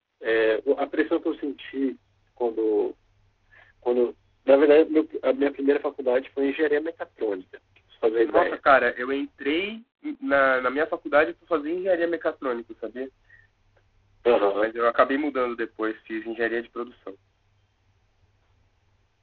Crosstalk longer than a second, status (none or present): none